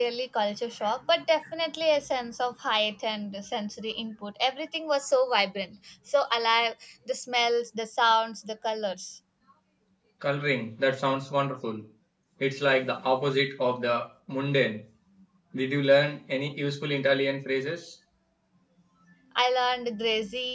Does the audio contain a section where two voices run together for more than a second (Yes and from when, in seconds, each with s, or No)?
No